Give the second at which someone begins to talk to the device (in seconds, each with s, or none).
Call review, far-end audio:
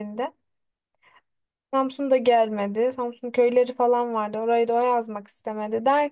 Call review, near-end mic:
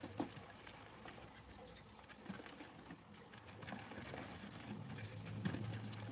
none